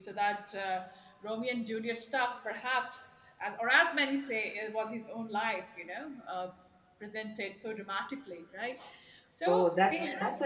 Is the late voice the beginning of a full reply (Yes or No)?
Yes